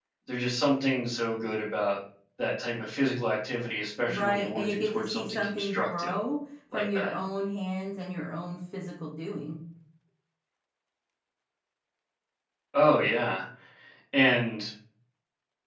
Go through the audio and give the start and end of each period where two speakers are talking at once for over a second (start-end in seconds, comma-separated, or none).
4.1-6.2